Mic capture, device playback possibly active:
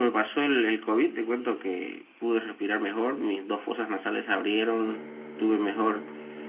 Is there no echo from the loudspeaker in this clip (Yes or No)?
No